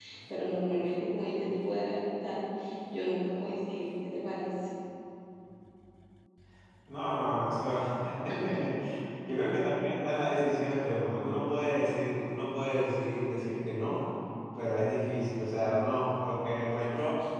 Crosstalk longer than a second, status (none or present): none